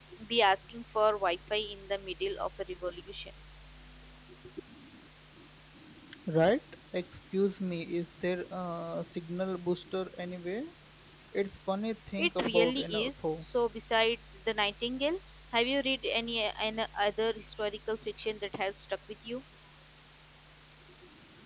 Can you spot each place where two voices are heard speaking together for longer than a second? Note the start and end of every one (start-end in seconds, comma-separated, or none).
12.2-13.4